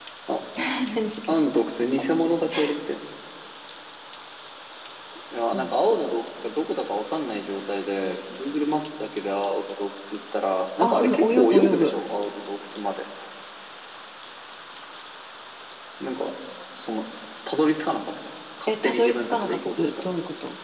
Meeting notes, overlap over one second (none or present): present